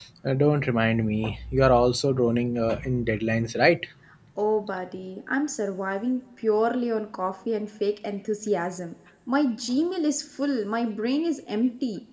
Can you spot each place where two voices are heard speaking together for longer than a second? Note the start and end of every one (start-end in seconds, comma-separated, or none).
none